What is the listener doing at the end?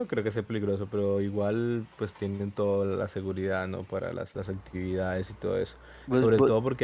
listening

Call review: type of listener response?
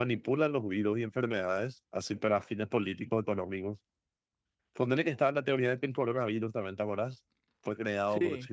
listening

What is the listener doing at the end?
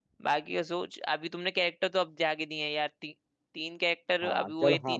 taking over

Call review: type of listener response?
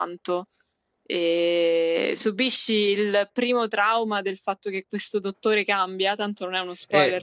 taking over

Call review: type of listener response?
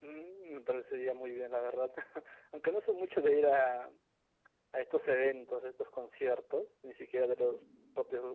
listening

